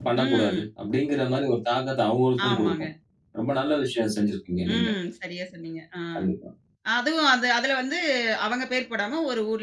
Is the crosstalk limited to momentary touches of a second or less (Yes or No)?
Yes